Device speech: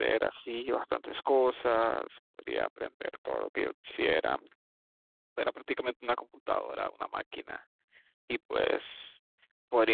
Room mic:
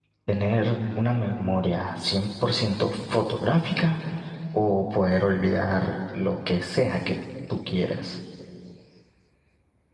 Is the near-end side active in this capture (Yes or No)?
Yes